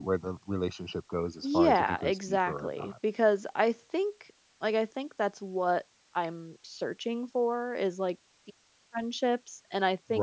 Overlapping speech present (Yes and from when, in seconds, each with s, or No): Yes, from 1.4 s